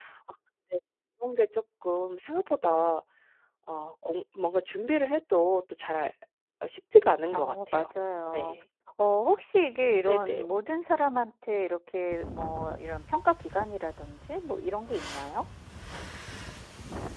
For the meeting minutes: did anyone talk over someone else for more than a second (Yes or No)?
No